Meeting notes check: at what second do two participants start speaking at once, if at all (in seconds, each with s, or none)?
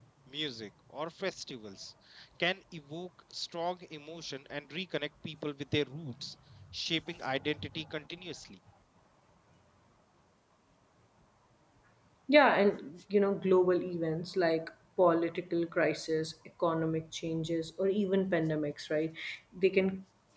none